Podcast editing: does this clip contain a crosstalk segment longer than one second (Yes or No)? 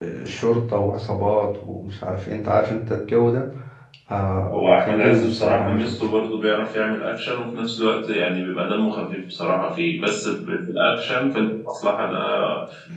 Yes